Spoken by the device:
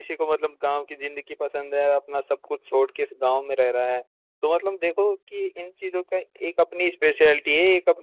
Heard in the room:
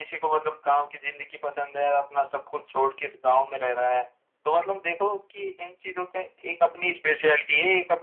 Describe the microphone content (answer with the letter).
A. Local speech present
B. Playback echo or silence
B